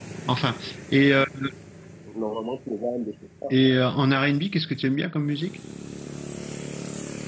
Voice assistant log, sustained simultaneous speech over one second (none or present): none